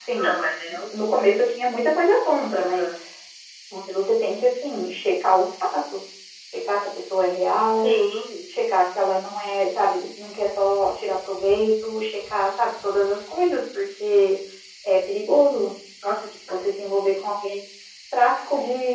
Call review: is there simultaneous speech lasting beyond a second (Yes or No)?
No